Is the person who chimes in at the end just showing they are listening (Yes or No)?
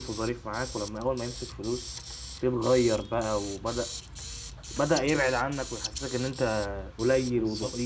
No